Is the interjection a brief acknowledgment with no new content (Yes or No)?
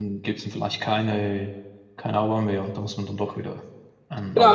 No